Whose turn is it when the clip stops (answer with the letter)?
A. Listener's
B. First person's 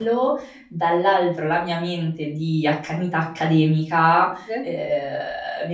B